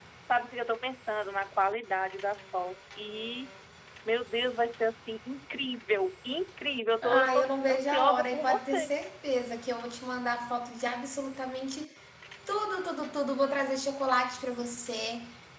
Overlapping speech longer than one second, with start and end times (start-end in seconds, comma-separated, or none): 7.0-8.9